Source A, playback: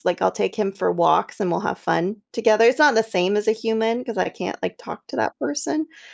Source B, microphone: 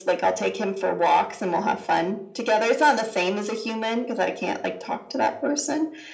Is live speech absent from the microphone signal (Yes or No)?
Yes